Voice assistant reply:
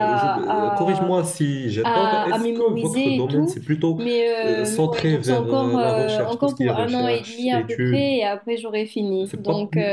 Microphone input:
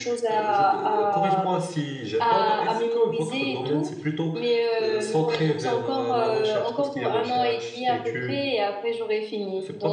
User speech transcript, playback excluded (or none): none